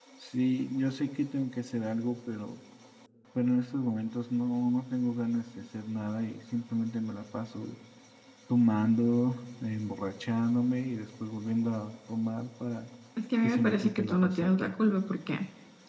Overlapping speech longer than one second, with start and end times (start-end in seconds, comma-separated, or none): 13.4-14.7